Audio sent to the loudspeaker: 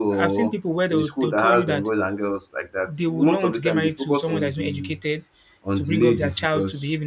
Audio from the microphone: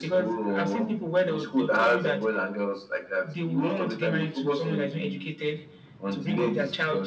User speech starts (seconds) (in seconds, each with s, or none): none